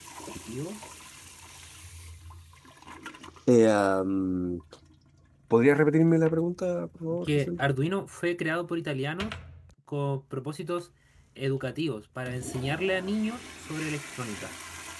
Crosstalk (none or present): none